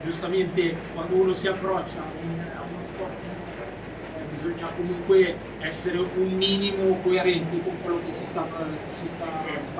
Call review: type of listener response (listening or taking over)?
listening